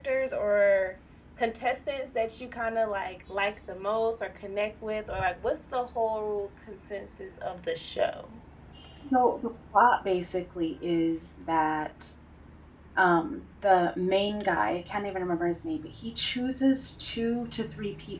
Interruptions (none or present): none